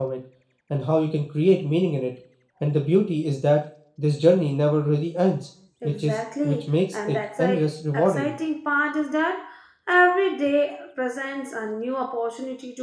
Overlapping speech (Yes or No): Yes